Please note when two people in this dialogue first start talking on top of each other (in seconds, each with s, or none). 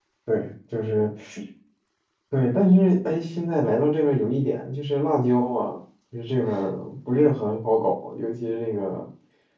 none